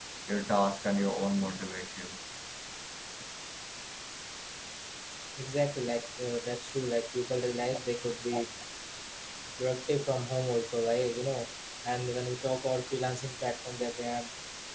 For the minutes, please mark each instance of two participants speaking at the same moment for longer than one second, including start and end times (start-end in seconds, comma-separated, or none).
none